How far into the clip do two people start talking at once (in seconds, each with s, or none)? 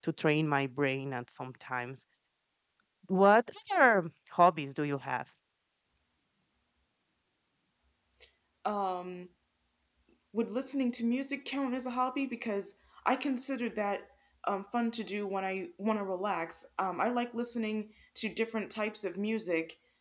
none